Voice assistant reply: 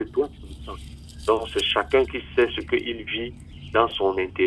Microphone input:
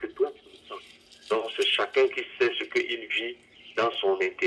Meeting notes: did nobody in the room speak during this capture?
Yes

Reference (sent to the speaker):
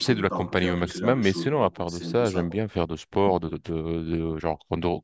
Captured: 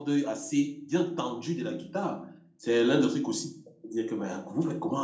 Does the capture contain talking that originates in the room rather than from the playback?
Yes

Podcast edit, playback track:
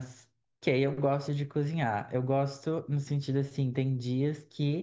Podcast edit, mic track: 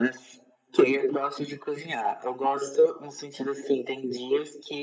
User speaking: No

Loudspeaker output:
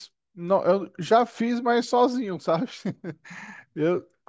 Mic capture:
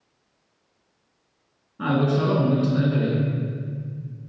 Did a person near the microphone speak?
Yes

